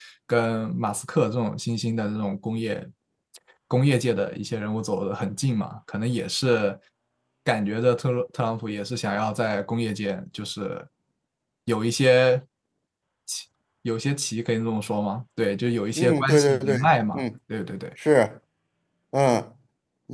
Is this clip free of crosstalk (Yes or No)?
No